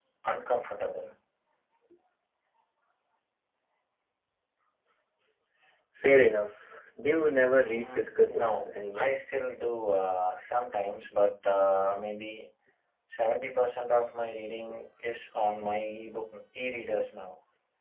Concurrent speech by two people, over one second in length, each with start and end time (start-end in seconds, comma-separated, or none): 7.6-9.1